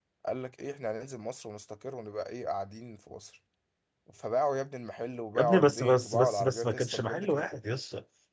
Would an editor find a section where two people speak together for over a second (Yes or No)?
Yes